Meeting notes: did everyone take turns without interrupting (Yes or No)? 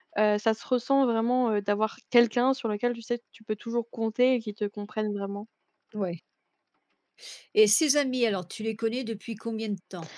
Yes